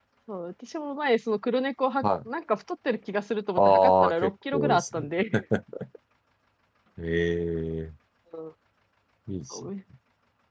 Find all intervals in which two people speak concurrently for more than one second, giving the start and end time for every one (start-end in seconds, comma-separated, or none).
3.6-5.0